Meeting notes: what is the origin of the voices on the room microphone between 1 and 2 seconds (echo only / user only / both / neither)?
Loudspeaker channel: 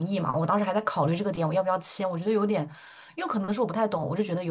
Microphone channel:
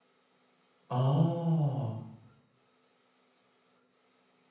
user only